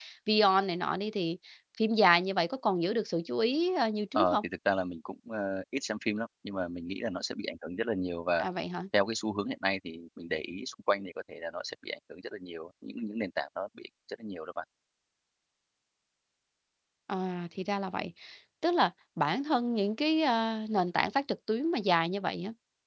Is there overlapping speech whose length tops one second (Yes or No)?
No